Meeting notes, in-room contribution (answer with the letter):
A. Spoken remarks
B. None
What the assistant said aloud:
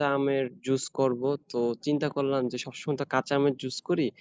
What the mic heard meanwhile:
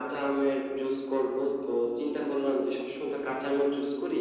B